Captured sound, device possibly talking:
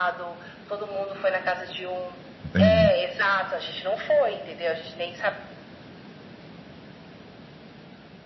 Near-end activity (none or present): present